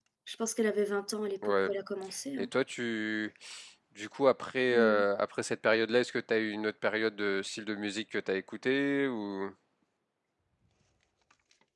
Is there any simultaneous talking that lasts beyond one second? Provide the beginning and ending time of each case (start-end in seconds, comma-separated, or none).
none